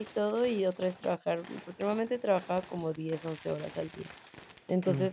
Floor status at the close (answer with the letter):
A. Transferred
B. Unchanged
B